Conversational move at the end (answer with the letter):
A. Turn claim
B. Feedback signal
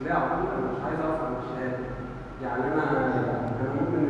B